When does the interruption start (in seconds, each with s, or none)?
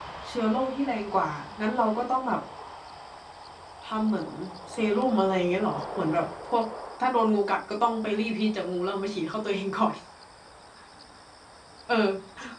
none